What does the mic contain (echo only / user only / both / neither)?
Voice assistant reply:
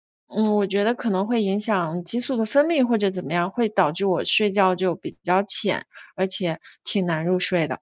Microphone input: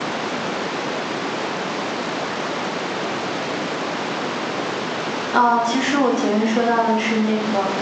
user only